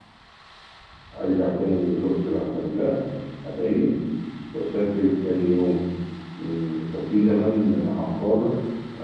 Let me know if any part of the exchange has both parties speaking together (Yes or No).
No